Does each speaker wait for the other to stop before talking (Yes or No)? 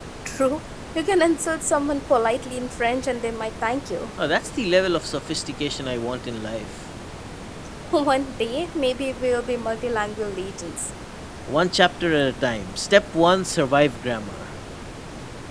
Yes